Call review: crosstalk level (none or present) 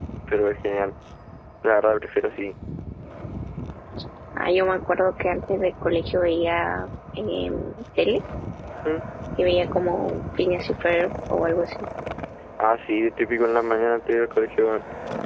none